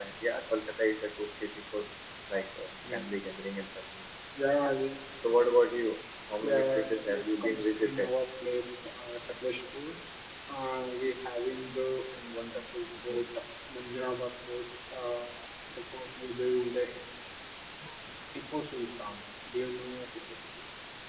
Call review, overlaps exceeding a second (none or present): present